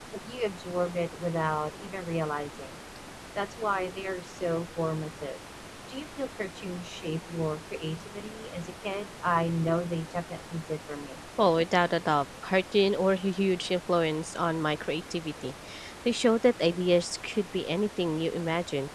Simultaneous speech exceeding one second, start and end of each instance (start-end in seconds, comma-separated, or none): none